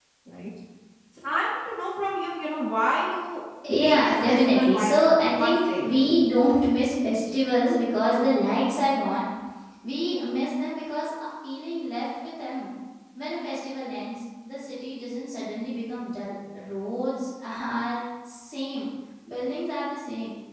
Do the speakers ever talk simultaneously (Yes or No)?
Yes